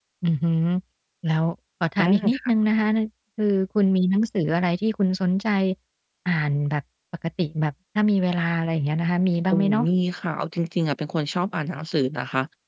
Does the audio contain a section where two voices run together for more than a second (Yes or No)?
No